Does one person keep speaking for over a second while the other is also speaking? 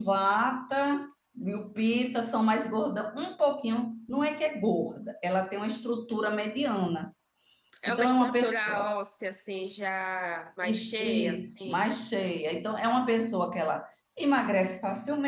Yes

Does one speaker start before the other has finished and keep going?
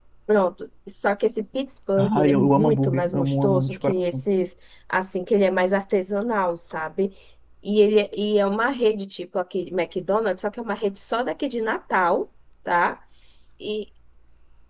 Yes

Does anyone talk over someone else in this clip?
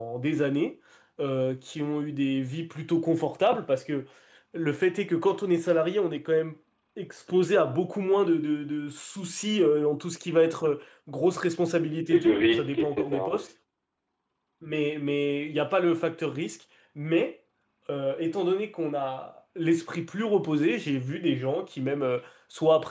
Yes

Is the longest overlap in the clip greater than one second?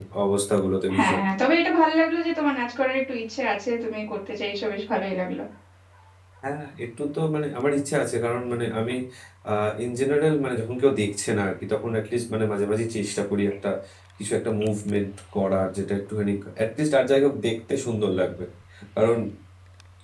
No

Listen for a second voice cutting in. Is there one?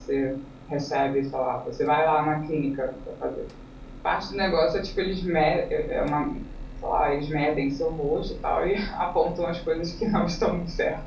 No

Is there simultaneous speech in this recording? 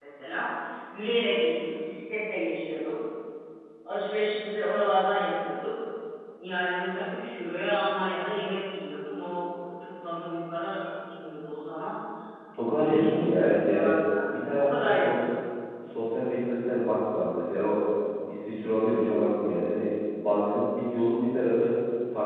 Yes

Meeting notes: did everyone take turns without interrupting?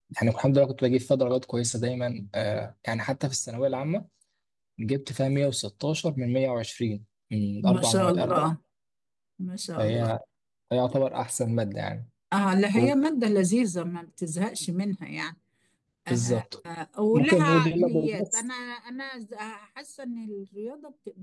No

